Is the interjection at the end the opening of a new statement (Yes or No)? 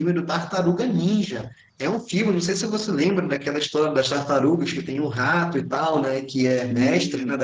No